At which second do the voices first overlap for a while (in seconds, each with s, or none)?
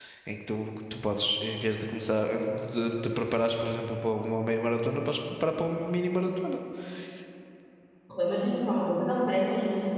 none